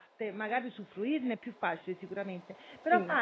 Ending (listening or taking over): listening